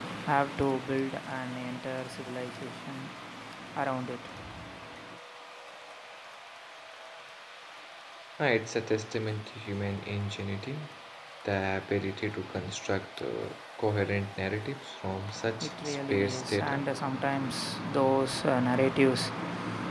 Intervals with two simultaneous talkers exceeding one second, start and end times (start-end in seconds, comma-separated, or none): 15.6-16.8